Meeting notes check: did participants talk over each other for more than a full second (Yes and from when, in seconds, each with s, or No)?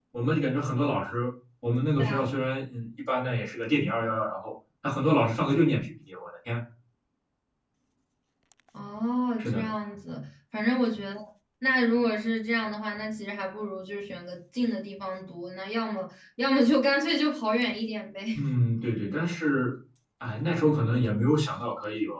No